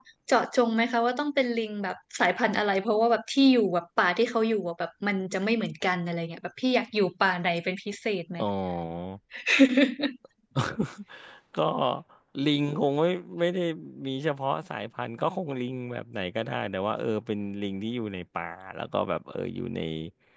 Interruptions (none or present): none